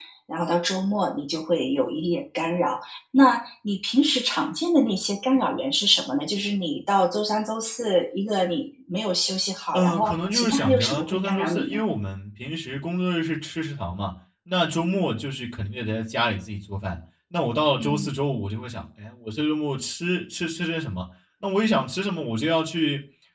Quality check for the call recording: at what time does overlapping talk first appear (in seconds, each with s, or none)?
9.7 s